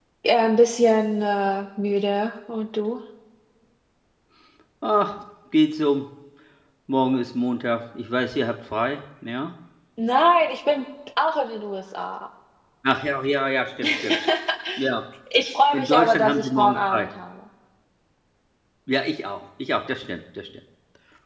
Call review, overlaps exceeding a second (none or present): present